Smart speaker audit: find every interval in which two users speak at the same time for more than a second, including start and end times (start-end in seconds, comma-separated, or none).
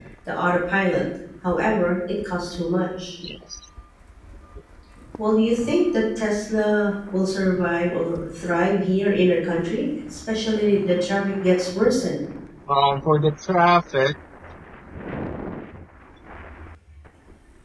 none